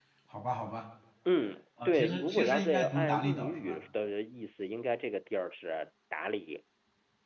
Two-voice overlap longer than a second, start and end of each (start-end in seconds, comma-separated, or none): 1.9-3.8